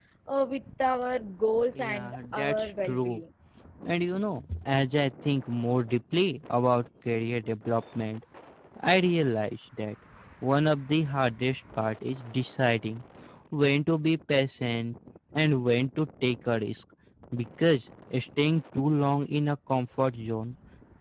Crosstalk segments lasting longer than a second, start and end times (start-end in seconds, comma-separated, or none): 1.8-3.2